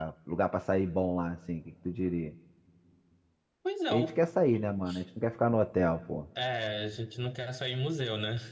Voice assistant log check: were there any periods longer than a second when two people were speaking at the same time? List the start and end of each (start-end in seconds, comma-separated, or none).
none